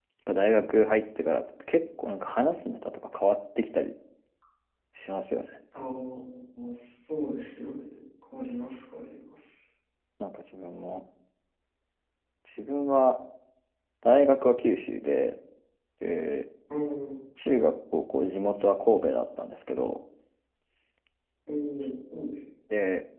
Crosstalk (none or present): none